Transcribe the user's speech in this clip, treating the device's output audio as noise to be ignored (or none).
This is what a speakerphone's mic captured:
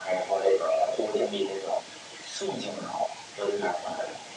none